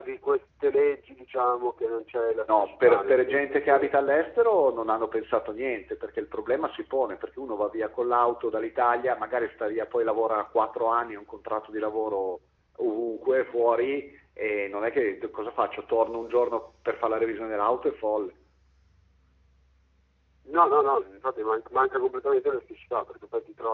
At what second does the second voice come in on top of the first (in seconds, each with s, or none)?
2.5 s